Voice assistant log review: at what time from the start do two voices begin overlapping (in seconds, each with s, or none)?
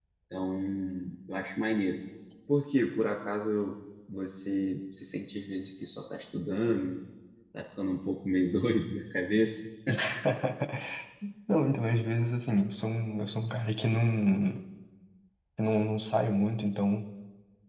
none